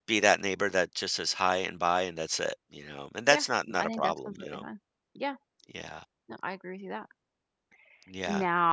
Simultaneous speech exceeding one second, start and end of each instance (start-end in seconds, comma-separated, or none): 3.3-4.6